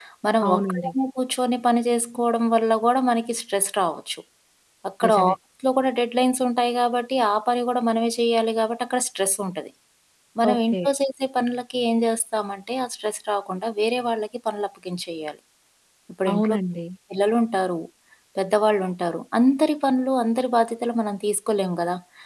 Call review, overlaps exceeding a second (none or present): none